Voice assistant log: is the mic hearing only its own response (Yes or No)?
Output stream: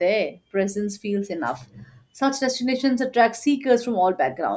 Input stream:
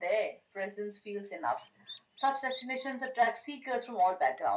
Yes